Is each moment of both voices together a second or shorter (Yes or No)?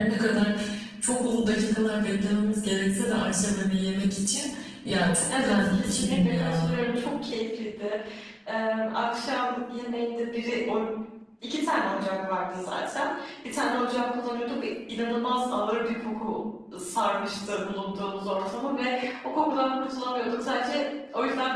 No